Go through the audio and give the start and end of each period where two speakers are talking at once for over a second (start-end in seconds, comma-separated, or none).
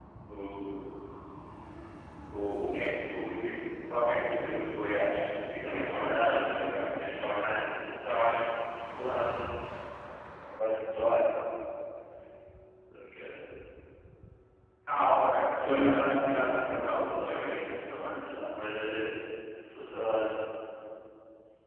5.6-6.9, 15.6-17.8